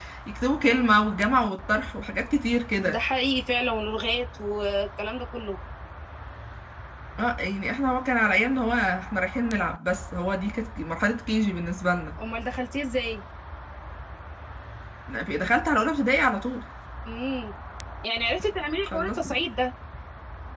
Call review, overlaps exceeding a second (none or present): none